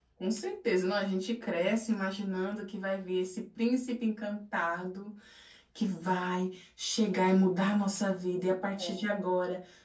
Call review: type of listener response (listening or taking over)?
listening